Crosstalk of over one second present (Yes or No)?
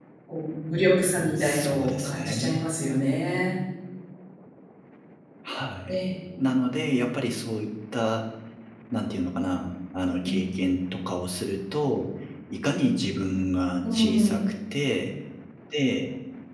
Yes